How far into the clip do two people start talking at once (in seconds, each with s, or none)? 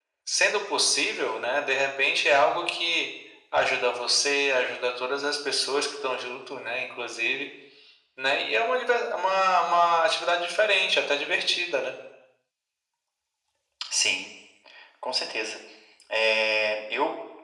none